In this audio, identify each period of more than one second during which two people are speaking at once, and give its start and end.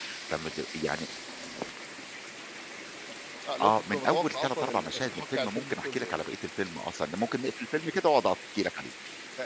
3.6-6.2

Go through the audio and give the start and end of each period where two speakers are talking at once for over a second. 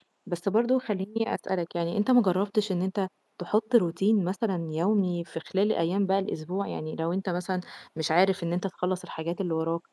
none

